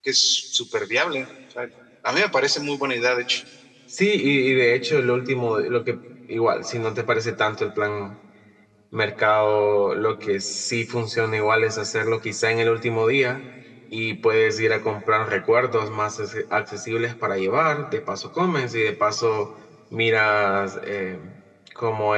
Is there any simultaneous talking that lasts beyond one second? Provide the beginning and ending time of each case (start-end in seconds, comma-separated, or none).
none